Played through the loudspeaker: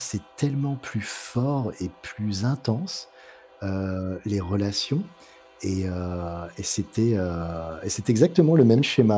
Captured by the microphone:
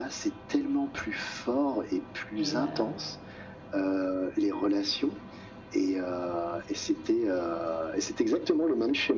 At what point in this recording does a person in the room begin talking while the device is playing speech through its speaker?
2.4 s

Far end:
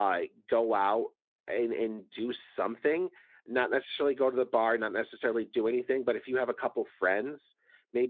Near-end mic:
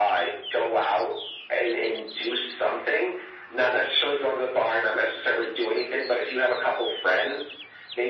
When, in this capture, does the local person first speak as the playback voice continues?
none

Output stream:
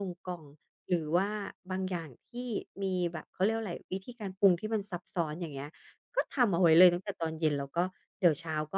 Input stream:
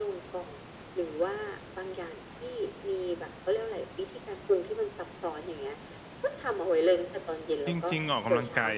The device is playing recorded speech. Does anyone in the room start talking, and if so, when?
7.7 s

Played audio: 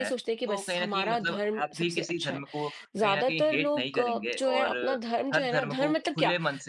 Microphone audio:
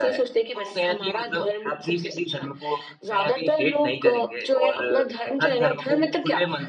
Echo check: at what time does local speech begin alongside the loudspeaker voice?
none

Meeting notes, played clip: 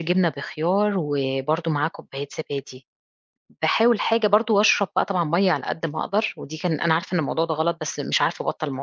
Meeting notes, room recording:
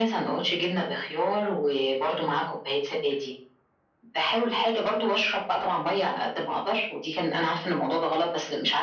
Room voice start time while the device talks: none

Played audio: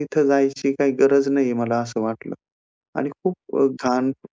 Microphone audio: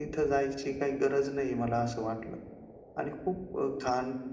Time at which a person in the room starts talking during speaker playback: none

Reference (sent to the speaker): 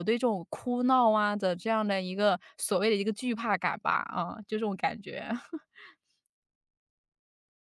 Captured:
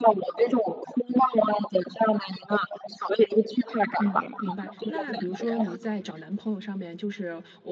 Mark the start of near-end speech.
4.0 s

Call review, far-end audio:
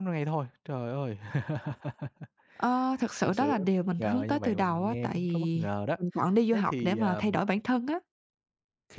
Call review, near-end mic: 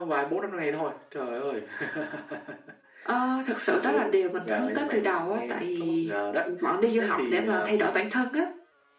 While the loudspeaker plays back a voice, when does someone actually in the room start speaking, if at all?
none

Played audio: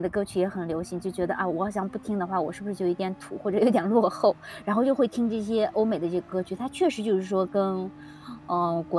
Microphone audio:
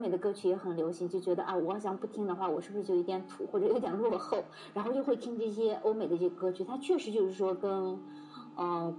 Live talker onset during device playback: none

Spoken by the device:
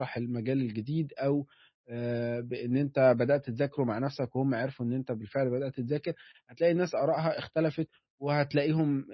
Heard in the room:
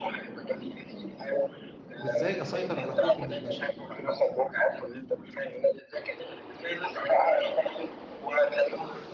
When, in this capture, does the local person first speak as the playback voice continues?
2.0 s

